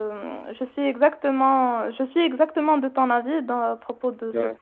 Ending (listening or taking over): listening